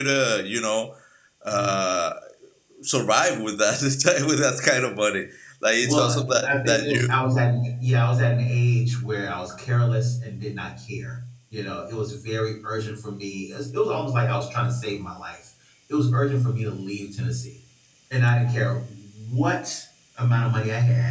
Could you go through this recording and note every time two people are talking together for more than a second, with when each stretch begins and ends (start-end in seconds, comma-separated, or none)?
5.8-7.0